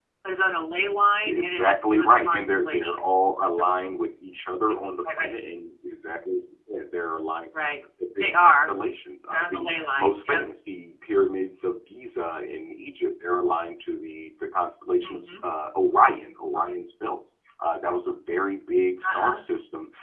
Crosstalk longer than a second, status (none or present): present